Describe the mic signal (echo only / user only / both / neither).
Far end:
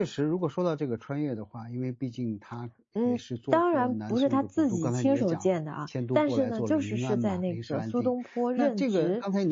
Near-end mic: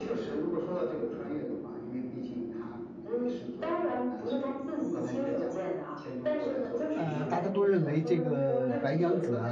both